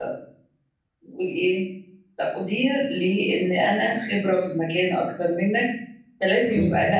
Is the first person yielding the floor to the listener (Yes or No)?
No